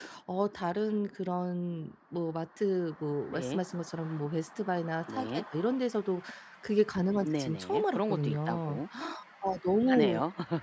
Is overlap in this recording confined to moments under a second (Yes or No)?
No